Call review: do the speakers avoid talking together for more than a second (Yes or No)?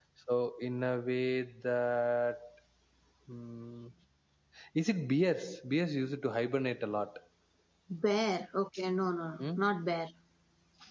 Yes